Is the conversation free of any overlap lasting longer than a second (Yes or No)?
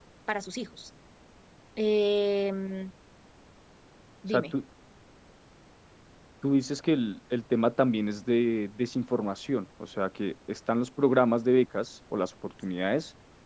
Yes